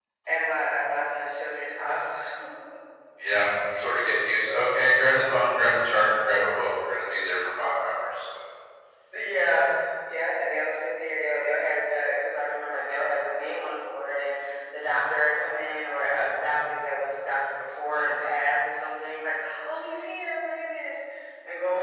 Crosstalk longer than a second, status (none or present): none